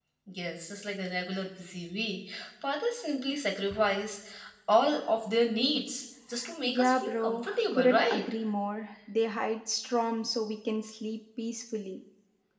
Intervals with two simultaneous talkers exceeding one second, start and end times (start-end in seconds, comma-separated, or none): 6.7-8.2